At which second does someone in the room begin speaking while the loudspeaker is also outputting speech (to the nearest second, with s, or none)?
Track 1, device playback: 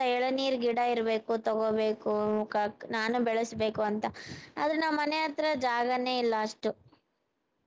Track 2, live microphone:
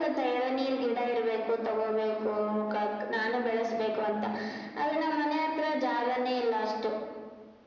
none